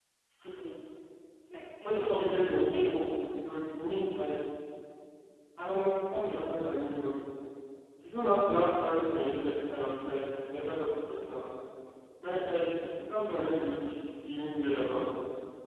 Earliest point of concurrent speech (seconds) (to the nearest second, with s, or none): 2 s